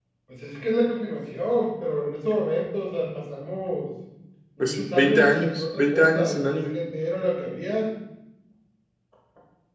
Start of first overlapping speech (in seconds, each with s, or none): 4.6 s